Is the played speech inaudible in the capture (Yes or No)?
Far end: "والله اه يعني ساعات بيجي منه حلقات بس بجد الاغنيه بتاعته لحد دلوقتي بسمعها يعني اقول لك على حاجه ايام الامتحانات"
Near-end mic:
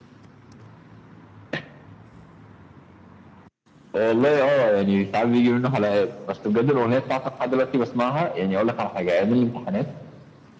No